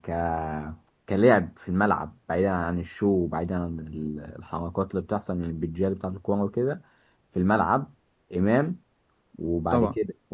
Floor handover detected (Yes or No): No